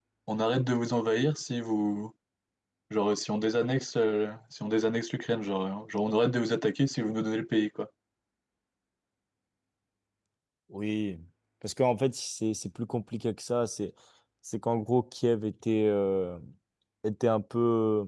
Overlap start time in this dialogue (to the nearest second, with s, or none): none